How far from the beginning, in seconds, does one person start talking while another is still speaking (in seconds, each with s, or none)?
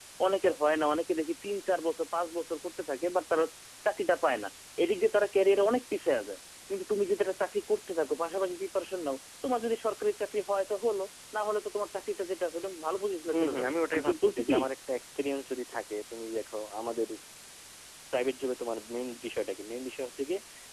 13.3 s